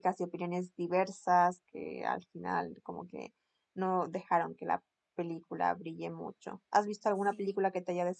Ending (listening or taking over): listening